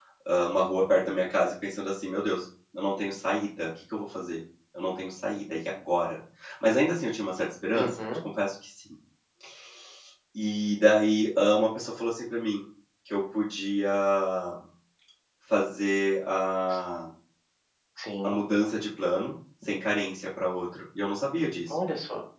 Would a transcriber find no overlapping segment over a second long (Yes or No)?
Yes